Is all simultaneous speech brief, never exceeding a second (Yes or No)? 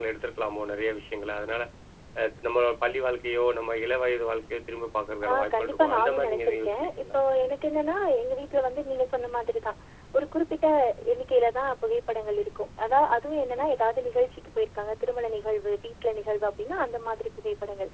No